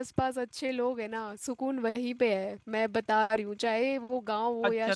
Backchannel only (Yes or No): No